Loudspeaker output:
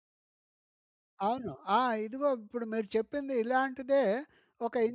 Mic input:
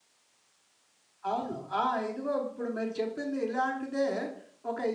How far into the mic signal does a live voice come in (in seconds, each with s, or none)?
none